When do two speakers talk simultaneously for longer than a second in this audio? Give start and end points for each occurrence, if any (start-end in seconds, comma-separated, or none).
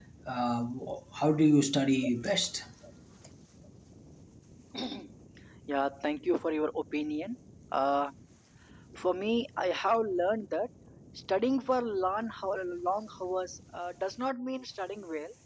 none